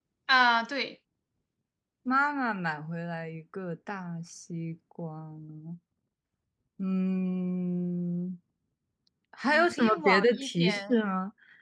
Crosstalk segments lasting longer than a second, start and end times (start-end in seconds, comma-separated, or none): 9.5-10.9